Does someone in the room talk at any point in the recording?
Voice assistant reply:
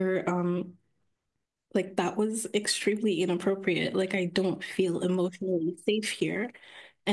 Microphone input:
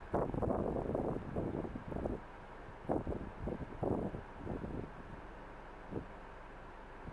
No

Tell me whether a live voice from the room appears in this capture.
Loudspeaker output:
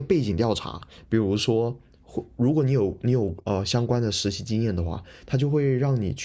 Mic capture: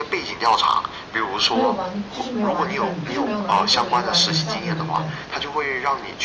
Yes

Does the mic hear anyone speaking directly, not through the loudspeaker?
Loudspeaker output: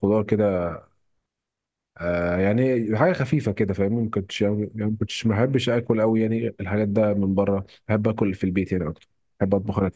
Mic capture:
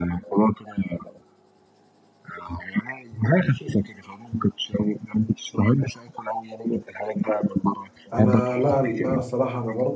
Yes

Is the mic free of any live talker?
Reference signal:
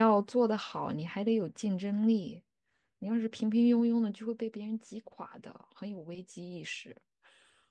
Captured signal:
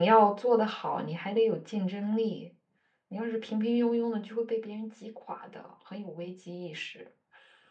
Yes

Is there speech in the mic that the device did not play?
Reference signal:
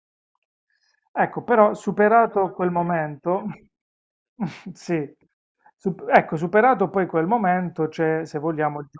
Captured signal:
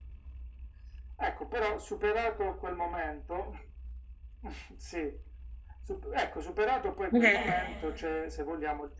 Yes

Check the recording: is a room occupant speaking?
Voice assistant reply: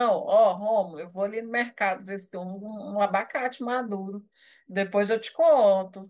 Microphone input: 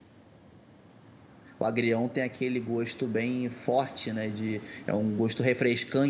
Yes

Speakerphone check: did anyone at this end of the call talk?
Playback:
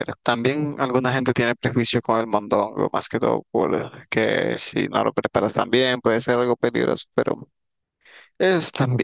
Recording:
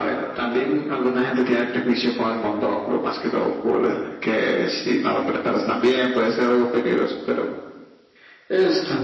No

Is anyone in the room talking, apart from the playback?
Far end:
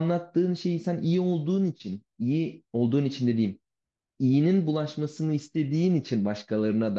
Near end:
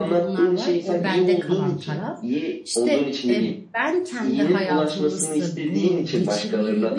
Yes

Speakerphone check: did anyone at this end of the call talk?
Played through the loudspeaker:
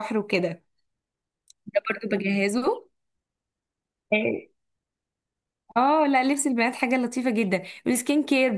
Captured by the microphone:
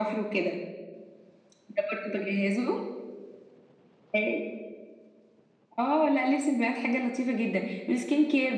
No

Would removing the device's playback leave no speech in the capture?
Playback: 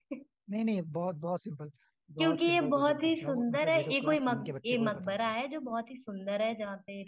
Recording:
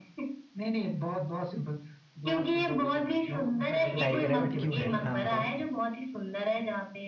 No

